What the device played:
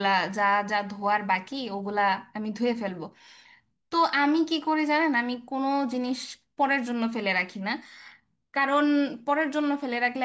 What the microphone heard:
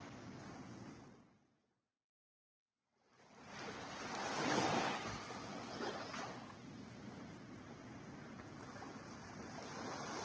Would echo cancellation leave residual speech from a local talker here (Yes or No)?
No